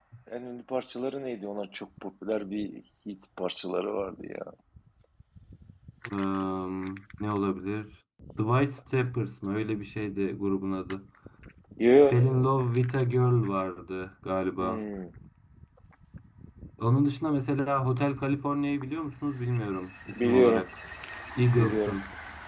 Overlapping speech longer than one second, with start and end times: none

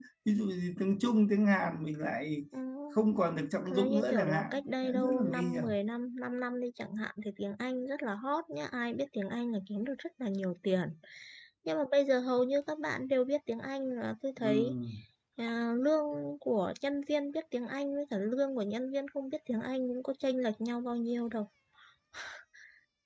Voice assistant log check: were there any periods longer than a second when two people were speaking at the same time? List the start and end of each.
3.7-5.6

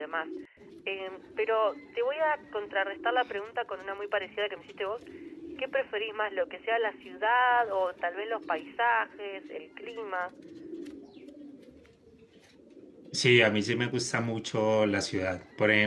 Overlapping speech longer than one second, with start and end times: none

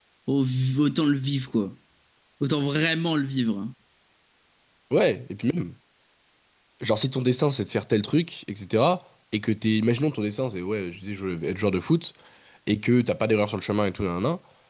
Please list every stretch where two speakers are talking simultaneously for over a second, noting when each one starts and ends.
none

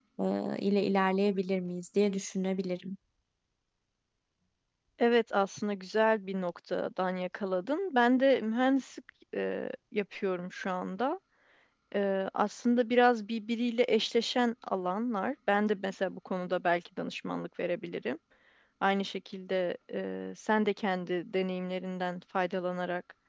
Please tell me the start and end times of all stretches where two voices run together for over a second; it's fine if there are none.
none

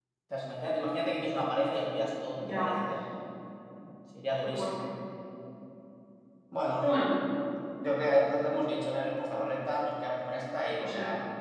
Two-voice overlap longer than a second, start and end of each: none

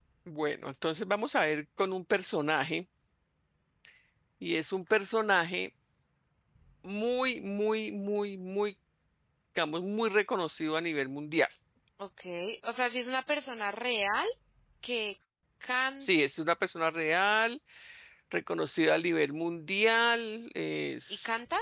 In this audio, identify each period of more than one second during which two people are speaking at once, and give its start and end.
none

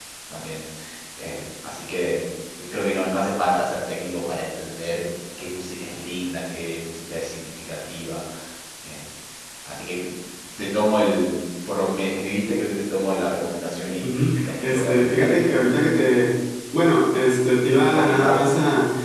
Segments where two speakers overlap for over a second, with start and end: 14.0-15.5

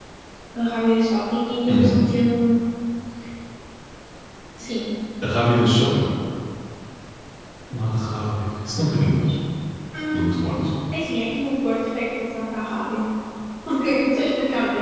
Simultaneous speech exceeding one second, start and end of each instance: none

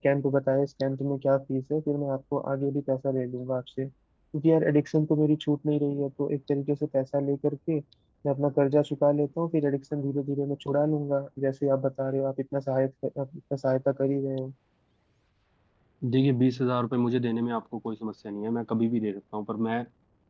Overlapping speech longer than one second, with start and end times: none

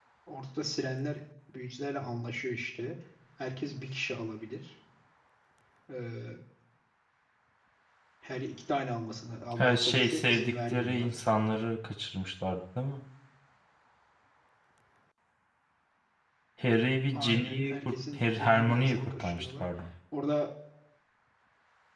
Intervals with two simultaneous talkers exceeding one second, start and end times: 9.6-11.2, 17.1-19.6

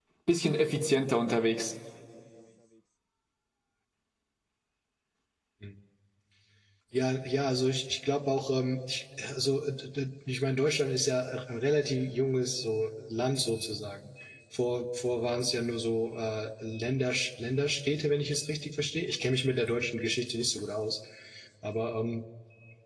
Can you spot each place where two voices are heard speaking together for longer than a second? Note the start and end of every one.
none

